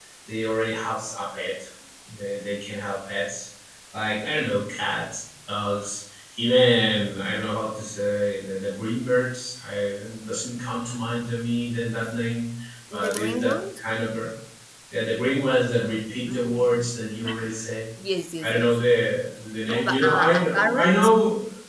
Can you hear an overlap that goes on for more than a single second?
Yes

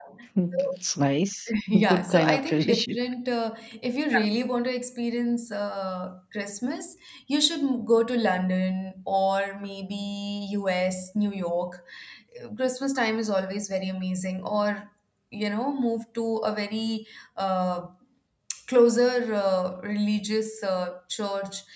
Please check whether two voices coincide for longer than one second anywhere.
Yes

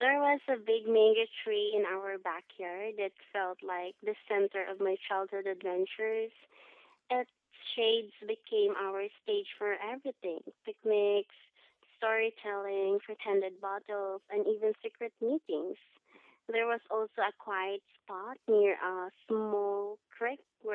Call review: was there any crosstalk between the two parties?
No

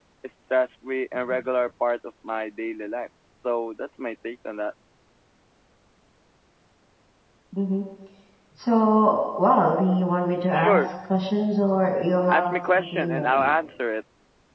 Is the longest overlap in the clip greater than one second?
Yes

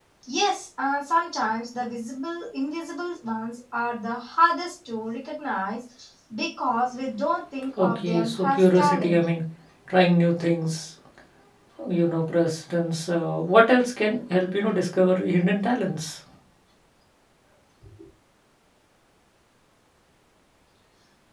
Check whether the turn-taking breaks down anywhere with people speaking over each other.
Yes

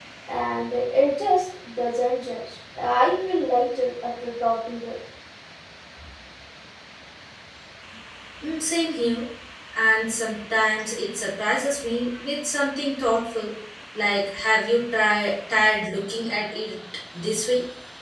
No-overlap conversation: Yes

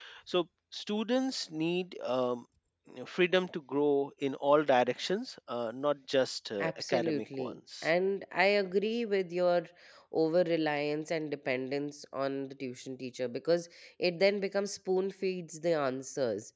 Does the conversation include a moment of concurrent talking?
Yes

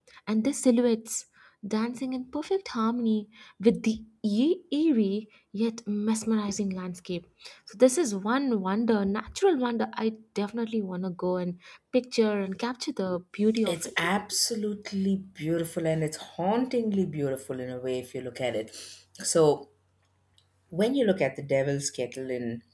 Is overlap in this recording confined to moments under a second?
Yes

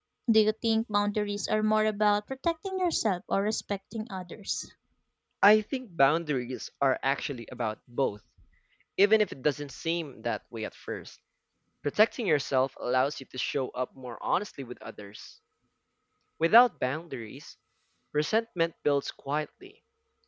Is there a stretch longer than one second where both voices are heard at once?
No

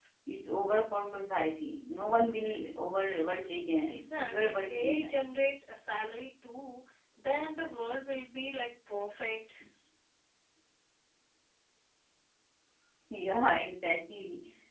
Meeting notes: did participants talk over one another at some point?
Yes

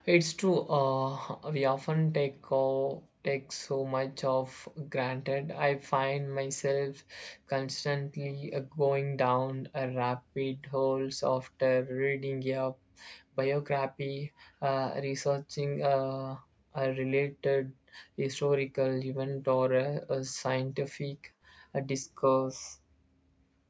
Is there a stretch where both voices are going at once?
No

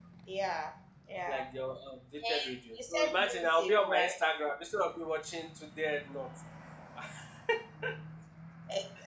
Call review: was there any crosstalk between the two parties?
Yes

